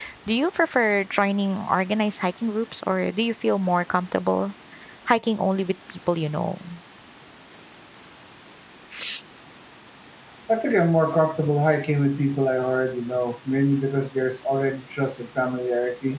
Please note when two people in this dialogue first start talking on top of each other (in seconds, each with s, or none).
none